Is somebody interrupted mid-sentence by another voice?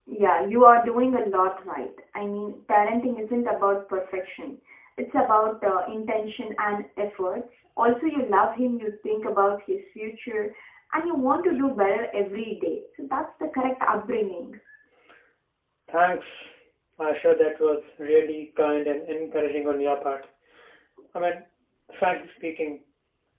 No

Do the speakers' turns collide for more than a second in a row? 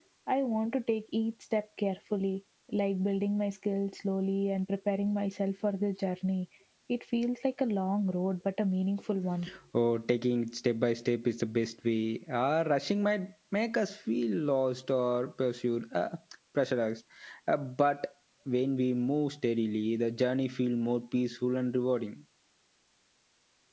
No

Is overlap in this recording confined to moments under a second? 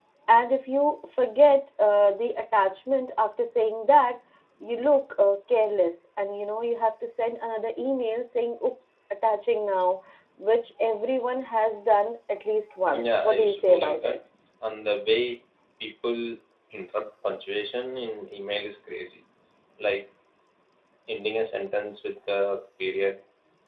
No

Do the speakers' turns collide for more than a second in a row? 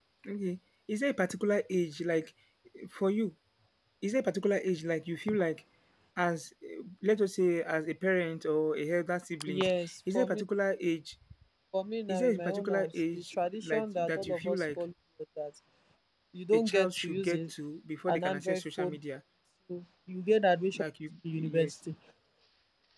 Yes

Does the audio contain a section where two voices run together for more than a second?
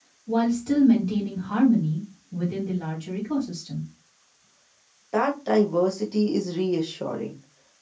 No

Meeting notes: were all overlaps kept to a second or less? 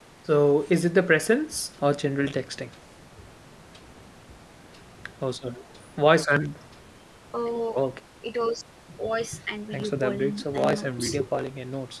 No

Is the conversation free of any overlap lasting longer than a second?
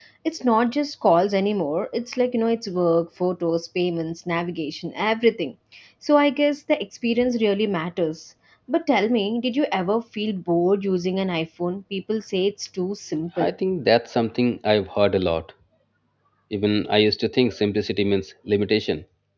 Yes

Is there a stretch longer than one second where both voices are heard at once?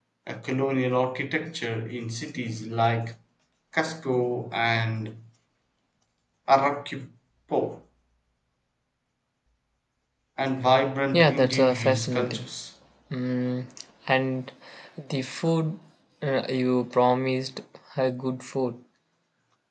Yes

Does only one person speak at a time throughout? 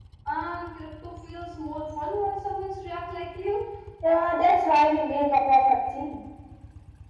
Yes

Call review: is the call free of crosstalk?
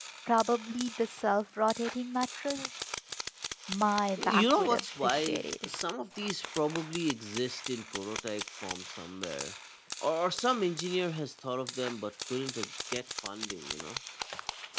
No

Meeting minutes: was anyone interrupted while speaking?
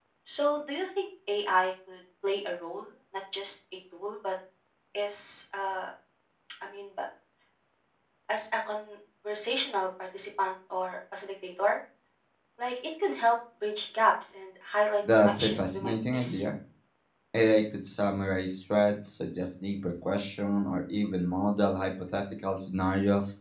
Yes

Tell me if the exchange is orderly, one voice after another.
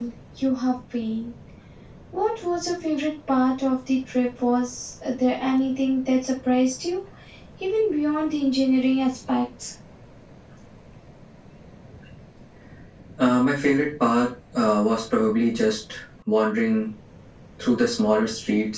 Yes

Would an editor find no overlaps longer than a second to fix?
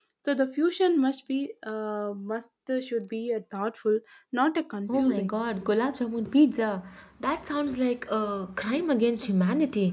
Yes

